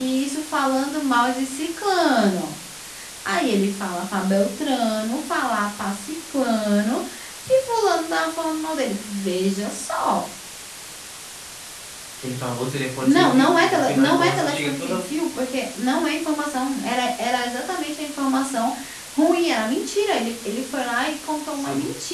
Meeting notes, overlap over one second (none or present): present